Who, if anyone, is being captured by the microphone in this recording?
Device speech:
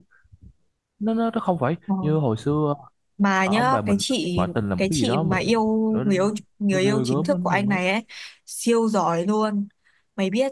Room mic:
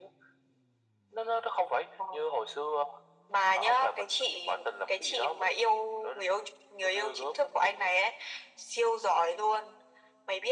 echo only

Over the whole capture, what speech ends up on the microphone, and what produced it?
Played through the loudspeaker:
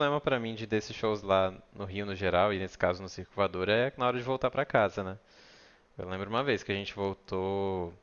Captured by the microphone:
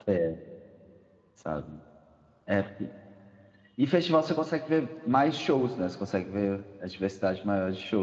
user only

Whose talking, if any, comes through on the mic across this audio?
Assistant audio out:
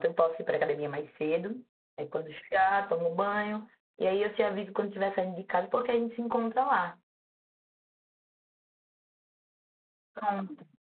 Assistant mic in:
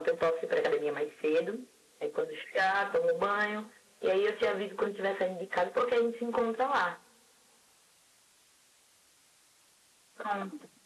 echo only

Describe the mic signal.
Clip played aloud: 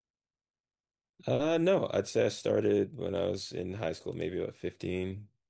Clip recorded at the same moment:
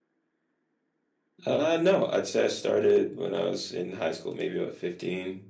echo only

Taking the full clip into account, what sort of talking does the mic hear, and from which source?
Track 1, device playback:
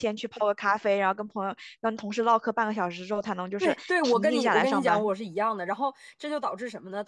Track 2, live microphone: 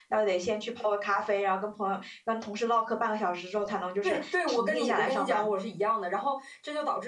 echo only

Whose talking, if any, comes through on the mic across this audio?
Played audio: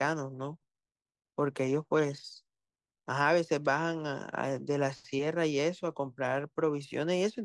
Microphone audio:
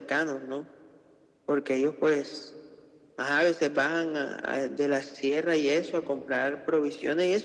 echo only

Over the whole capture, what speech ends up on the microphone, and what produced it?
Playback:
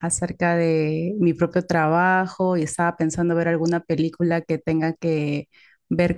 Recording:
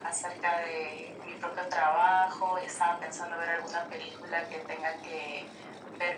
echo only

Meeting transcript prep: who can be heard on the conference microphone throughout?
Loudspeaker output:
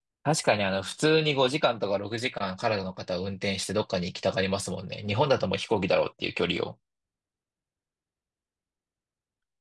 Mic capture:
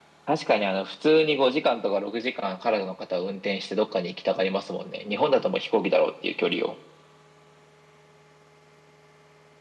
echo only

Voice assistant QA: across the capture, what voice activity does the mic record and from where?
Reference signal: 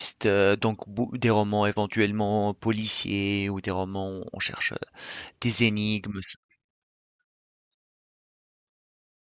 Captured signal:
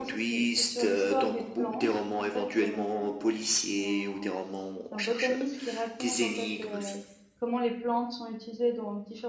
both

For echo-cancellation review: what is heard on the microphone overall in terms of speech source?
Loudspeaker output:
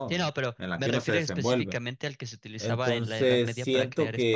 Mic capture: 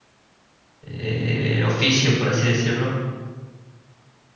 user only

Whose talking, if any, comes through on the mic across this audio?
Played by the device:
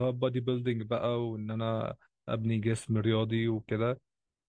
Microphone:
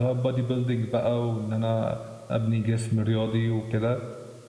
echo only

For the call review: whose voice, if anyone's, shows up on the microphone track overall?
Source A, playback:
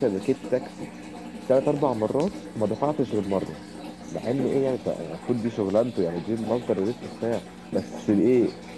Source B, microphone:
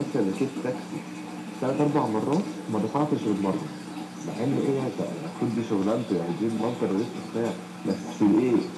echo only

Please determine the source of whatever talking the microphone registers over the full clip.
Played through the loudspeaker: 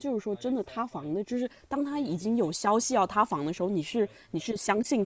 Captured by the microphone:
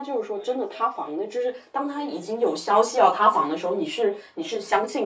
echo only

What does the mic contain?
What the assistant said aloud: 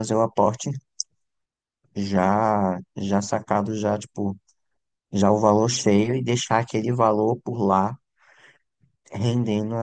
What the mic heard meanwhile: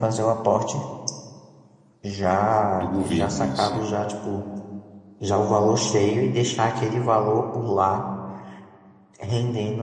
both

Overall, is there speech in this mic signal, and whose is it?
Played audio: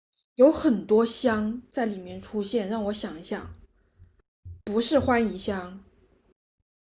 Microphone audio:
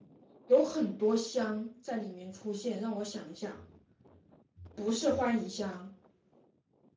echo only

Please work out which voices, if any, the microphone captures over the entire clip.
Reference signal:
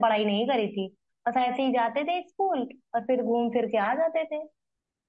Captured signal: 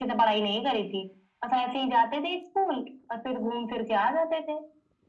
echo only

